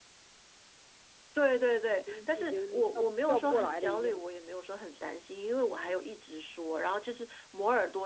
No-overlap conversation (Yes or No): No